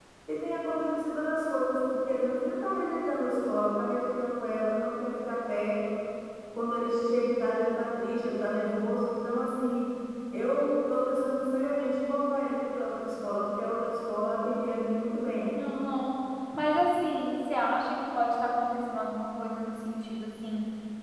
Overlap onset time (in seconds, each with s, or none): none